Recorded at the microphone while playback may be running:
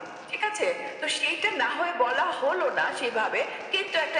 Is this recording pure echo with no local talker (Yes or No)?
Yes